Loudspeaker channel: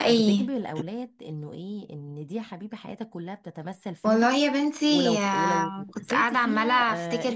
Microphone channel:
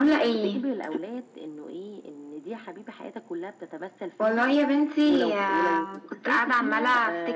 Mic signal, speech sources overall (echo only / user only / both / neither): echo only